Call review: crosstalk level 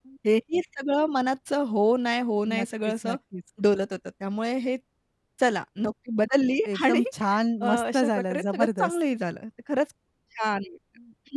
present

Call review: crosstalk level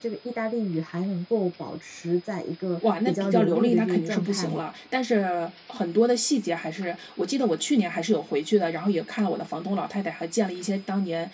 present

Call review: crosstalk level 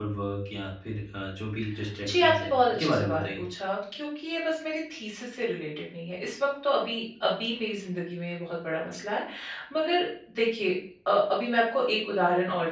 present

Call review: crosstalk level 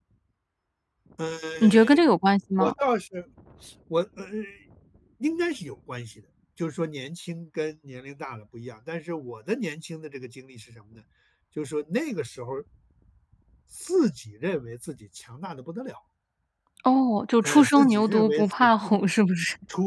present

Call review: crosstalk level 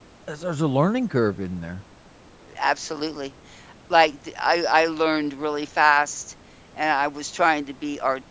none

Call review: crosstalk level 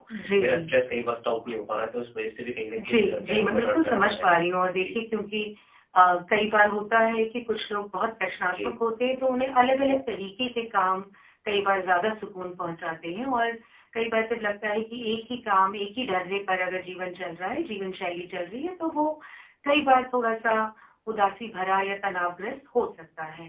present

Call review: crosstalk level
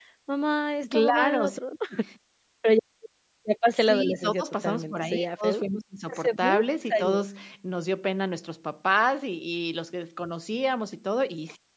present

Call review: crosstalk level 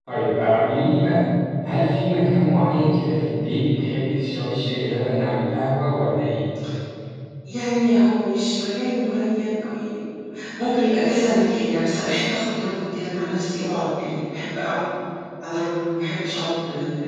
none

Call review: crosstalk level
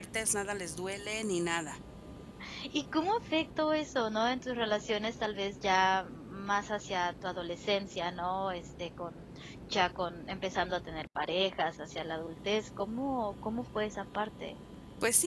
none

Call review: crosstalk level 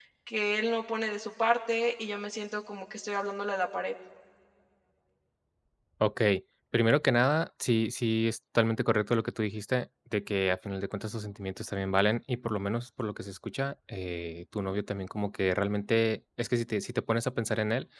none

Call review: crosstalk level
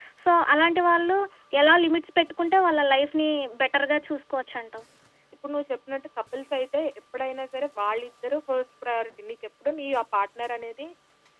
none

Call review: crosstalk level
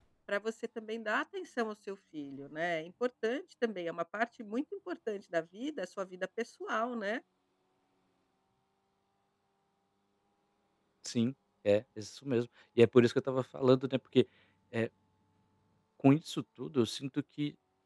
none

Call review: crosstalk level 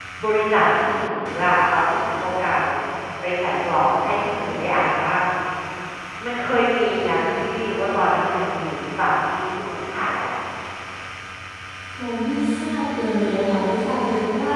none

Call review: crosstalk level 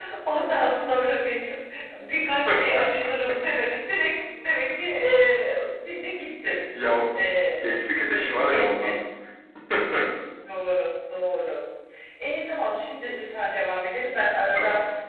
present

